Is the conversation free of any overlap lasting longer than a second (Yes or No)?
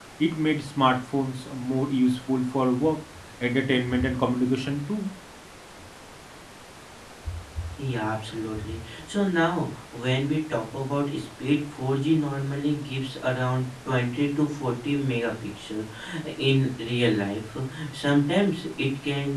Yes